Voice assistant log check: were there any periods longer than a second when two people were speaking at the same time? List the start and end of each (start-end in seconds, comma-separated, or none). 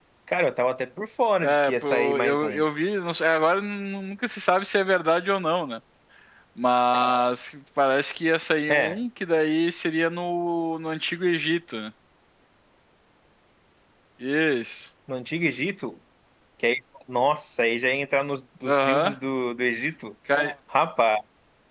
1.4-2.6